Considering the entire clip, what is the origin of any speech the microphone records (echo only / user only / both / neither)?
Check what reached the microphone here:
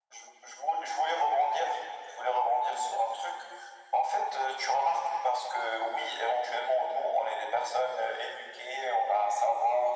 echo only